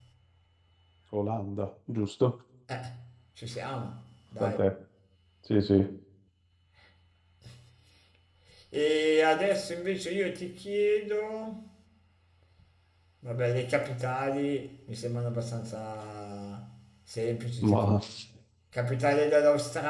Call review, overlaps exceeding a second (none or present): none